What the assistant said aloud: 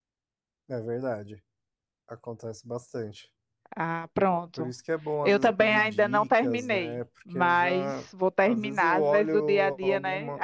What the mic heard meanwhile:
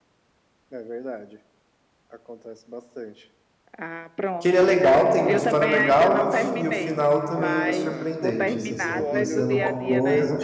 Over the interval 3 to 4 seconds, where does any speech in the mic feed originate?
echo only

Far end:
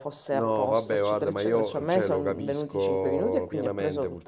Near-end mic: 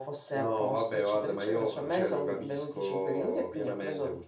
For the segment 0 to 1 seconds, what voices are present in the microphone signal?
echo only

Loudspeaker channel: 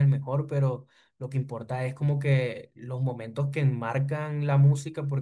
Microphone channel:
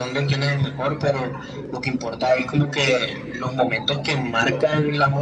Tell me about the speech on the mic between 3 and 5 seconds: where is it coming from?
echo only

